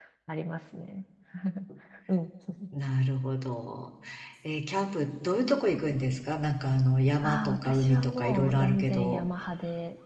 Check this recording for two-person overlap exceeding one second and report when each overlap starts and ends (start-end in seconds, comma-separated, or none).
7.2-9.2